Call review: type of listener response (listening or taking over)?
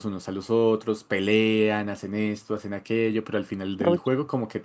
listening